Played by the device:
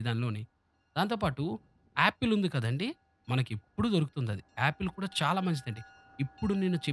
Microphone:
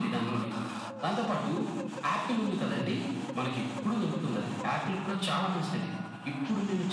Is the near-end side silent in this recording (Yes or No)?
Yes